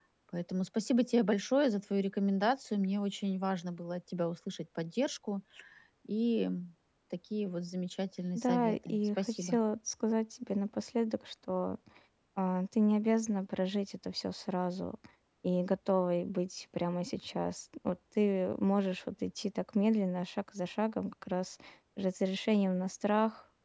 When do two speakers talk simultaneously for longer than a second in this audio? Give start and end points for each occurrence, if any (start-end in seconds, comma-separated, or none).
8.3-9.6